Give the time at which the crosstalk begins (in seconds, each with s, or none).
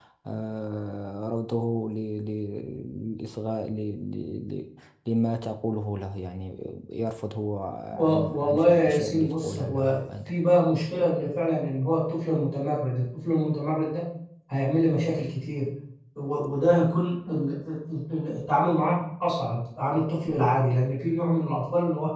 8.1 s